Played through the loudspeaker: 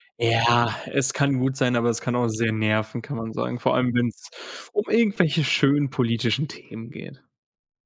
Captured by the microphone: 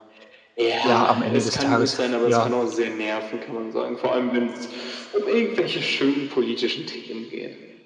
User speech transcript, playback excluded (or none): Ja, am Ende des Tages, ja